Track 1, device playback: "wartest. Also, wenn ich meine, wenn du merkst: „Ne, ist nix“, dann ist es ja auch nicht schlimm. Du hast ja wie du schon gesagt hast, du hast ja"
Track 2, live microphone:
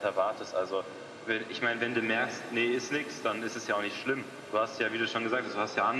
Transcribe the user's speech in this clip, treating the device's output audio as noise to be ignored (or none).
none